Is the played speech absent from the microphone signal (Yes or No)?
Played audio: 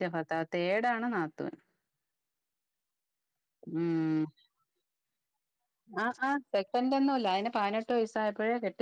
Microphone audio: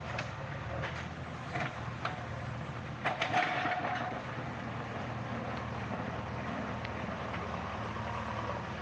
Yes